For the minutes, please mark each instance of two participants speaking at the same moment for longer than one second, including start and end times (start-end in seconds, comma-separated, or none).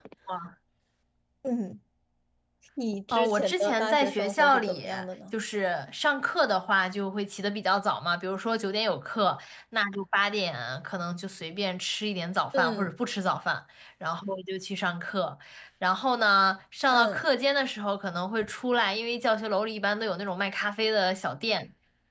3.1-4.9